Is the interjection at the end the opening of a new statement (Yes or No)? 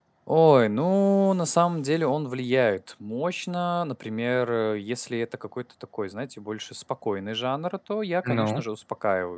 No